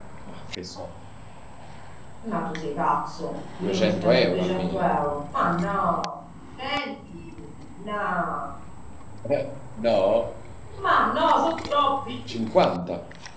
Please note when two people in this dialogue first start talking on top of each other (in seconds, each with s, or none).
3.6 s